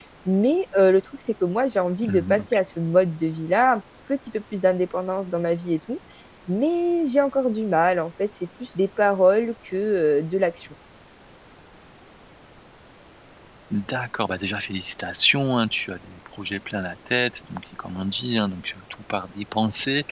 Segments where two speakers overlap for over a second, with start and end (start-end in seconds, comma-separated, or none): none